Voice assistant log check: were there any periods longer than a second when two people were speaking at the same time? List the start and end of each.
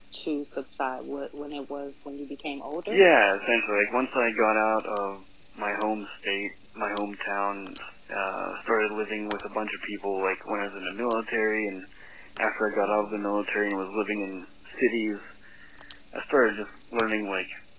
none

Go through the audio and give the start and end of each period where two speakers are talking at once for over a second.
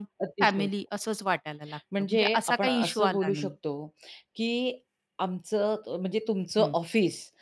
2.0-3.5

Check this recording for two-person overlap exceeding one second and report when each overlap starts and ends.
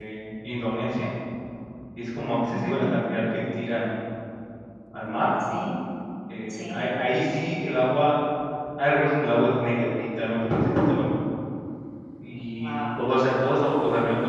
none

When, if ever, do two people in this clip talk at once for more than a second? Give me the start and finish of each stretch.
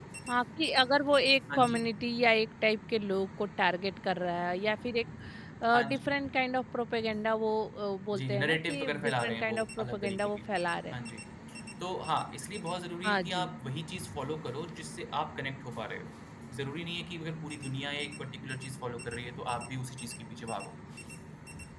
8.2-10.4

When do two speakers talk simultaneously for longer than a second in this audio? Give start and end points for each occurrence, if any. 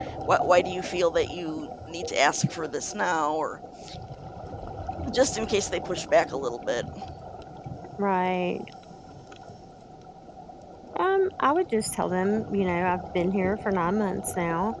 none

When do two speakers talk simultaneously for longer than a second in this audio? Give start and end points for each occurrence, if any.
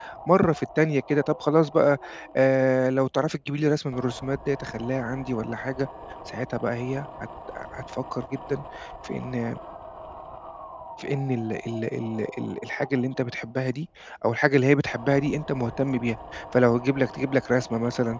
none

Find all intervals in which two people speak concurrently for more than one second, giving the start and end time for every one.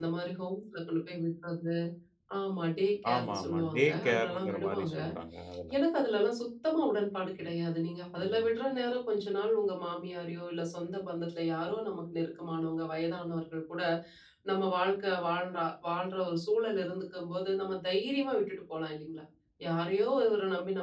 3.1-5.0

